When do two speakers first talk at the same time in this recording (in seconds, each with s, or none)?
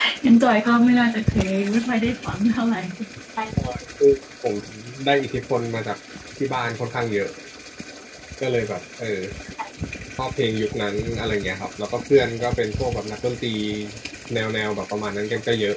none